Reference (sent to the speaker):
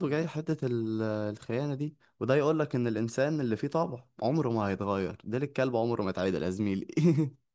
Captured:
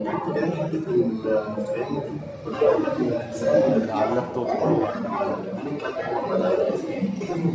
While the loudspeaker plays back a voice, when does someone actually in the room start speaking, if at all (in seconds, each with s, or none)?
3.5 s